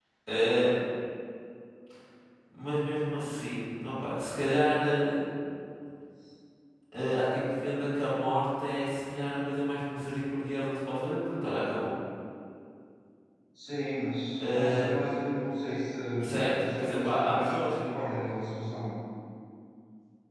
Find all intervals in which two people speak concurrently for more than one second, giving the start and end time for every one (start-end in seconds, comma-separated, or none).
16.2-17.8